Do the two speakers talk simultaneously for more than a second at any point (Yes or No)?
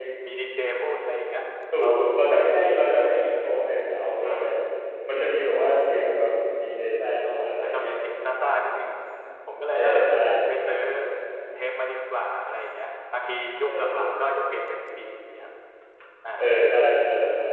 No